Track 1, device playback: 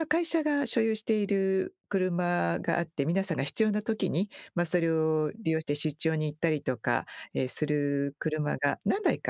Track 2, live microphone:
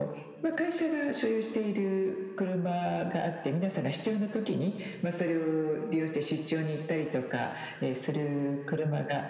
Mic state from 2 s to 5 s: echo only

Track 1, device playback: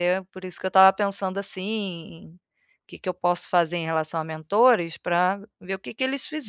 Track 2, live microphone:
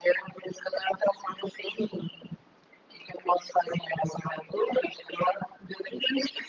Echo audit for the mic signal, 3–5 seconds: echo only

